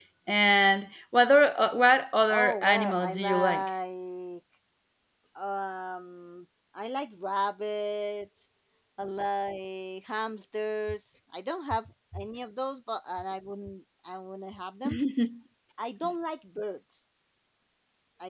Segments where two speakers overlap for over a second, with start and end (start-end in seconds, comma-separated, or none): 2.3-3.7